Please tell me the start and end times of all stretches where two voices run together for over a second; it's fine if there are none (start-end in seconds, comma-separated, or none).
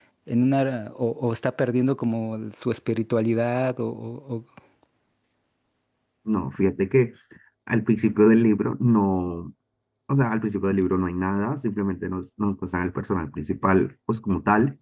none